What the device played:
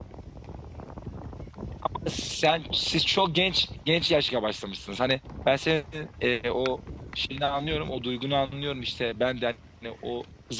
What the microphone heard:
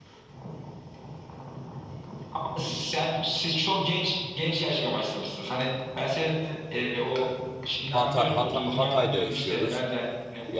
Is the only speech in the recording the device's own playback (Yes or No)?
No